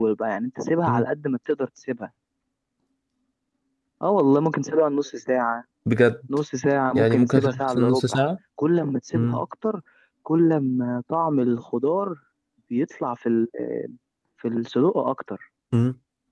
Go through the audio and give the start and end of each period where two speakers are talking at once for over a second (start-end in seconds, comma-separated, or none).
6.9-8.2